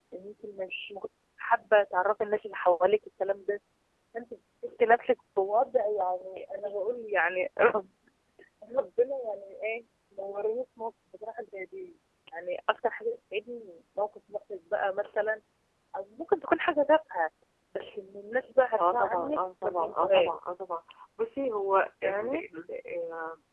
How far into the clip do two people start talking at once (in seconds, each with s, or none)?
18.8 s